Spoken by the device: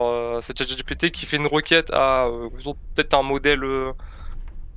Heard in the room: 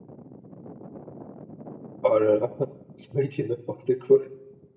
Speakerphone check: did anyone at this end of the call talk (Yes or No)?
Yes